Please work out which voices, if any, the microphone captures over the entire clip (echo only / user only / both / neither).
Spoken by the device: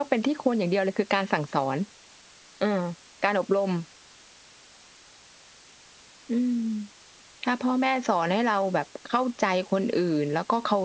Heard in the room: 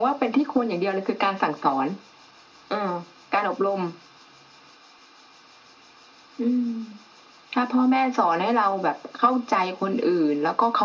echo only